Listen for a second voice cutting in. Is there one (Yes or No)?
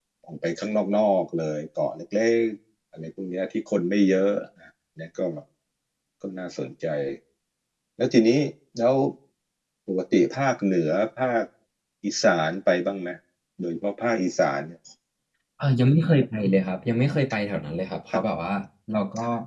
No